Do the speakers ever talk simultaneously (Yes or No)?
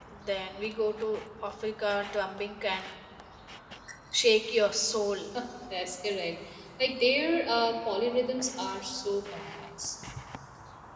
No